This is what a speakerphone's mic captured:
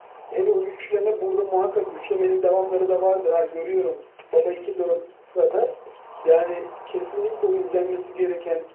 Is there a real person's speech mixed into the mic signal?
No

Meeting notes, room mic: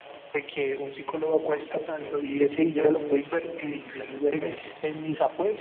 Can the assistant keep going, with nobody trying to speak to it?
No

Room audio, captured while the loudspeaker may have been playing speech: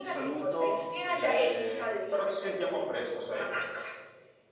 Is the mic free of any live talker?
No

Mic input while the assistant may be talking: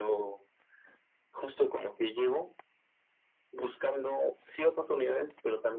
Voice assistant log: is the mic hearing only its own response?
Yes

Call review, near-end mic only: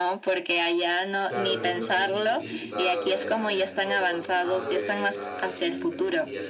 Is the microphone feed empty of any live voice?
No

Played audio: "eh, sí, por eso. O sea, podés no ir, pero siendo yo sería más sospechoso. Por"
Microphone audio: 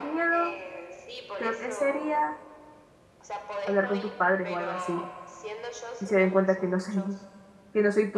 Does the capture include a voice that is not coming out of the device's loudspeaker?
Yes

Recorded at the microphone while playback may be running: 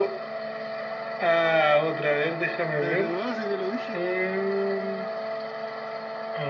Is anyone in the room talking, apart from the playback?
Yes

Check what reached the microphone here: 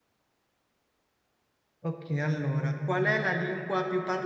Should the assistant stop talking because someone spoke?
Yes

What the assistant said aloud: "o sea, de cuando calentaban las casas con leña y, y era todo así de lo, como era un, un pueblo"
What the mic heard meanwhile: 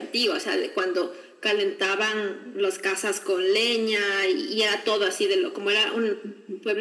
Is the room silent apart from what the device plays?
Yes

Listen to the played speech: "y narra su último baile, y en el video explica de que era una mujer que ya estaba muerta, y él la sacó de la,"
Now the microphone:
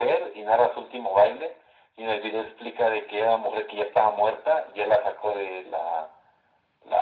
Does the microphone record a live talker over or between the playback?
No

